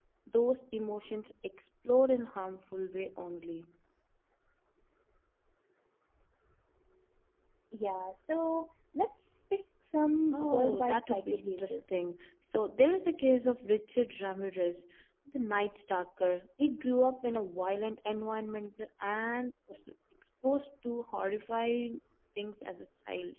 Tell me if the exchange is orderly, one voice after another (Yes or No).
No